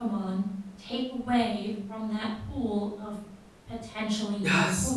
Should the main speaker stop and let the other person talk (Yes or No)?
Yes